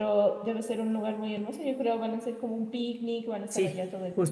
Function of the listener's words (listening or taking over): taking over